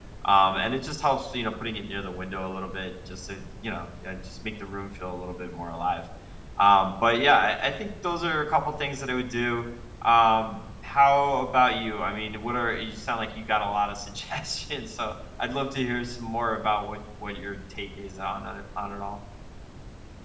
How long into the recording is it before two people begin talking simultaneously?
none

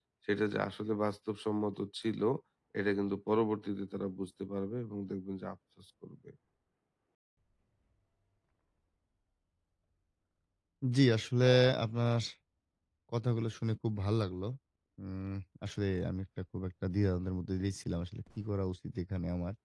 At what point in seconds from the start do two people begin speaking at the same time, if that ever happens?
none

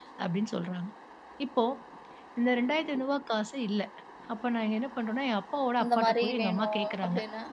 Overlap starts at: 6 s

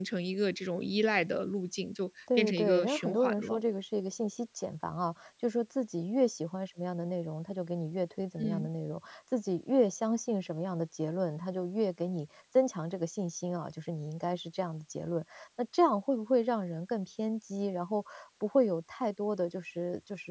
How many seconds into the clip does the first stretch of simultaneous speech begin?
2 s

